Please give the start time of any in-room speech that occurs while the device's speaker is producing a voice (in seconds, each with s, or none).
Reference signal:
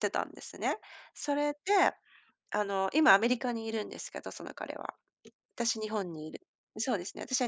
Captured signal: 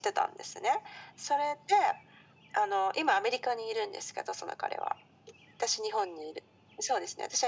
none